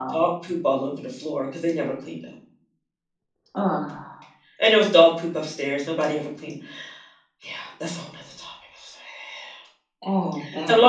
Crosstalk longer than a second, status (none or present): none